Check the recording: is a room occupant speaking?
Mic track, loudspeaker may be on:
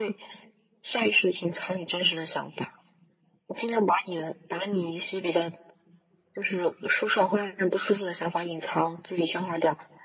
No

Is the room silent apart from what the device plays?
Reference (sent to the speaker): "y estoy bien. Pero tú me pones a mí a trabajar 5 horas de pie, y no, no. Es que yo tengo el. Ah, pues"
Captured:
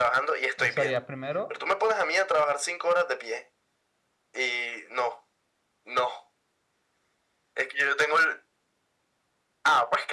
No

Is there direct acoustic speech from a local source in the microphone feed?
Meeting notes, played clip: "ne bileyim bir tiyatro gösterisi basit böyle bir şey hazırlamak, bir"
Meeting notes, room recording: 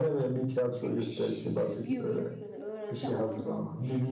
Yes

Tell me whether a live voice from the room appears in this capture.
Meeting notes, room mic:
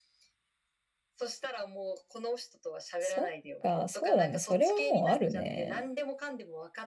Yes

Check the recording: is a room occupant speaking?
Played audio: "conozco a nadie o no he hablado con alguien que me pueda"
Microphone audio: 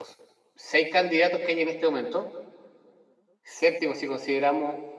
Yes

